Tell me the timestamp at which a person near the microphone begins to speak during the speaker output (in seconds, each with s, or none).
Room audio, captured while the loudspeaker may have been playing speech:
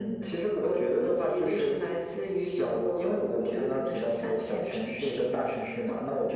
none